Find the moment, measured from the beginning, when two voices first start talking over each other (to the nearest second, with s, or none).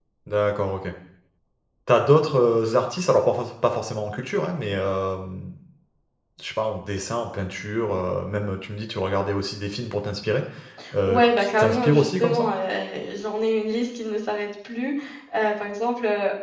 11 s